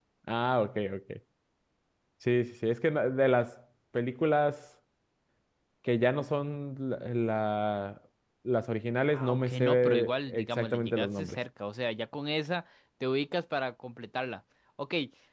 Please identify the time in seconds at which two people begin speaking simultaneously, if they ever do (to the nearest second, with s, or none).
9 s